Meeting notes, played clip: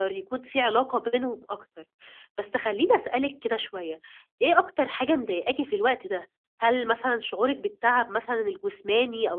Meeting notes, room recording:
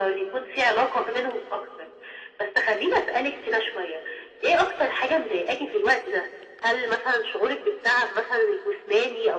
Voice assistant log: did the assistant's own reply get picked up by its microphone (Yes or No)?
Yes